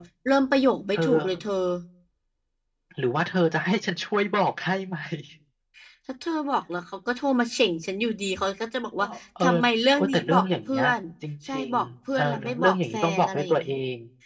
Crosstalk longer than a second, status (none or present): present